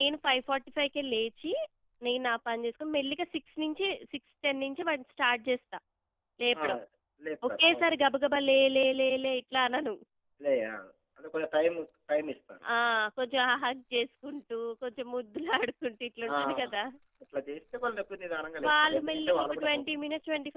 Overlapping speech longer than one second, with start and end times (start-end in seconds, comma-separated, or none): 18.6-20.0